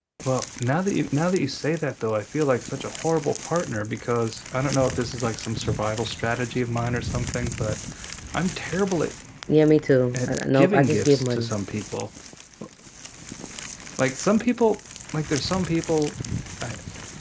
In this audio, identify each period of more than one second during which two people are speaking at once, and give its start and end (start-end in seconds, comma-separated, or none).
10.1-11.5